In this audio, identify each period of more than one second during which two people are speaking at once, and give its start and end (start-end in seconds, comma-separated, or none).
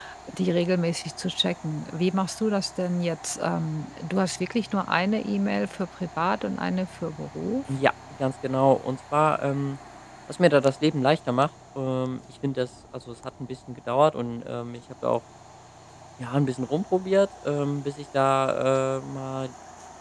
none